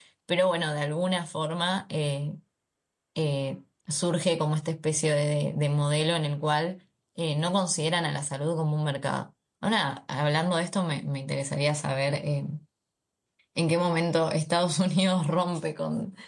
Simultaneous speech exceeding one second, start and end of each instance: none

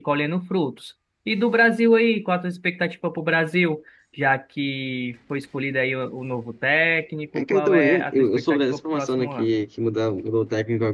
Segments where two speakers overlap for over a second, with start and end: 7.4-9.6

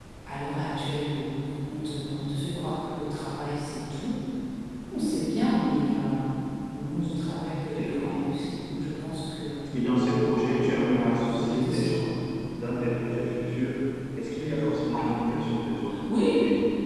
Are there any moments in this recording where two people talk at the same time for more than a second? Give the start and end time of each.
10.5-11.9

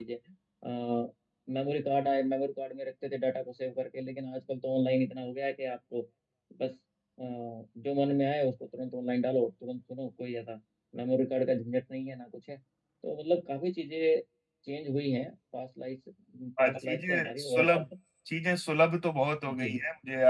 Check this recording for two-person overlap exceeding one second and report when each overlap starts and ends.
16.6-17.8

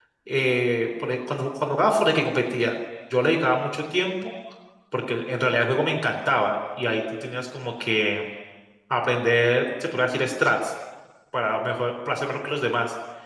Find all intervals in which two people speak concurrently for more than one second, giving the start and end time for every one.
none

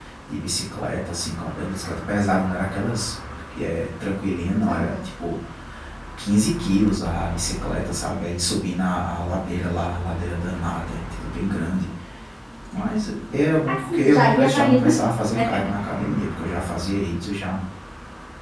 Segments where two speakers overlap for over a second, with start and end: 13.7-14.9

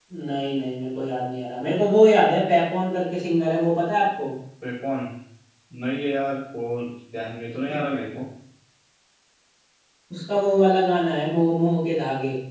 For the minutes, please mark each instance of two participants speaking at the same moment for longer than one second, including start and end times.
none

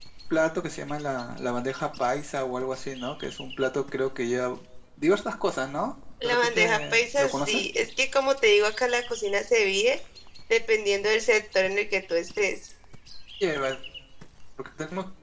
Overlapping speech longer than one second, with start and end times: 6.2-7.6

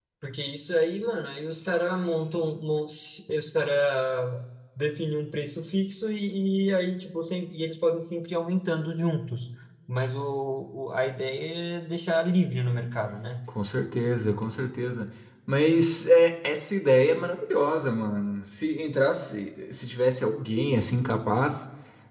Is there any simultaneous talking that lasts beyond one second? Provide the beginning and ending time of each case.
none

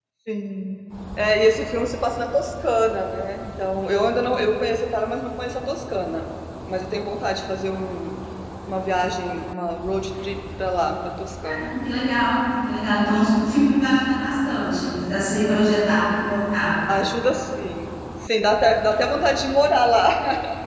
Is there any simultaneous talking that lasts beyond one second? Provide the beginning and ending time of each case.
none

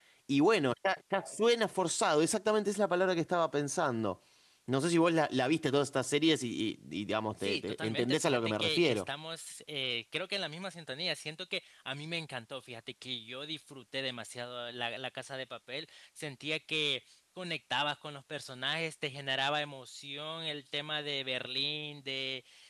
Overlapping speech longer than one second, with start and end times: 7.4-9.0

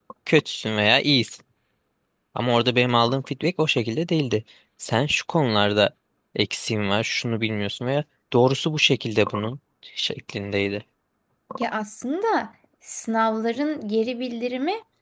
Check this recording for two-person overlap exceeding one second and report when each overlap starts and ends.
none

